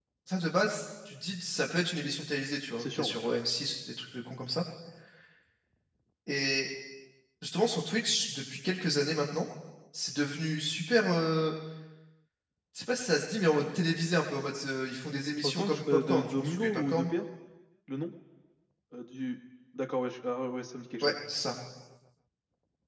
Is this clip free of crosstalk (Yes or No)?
No